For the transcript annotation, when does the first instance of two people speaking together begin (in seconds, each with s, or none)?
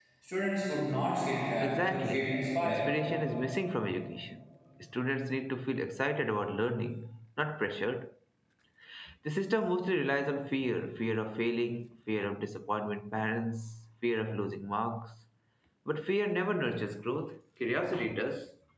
1.6 s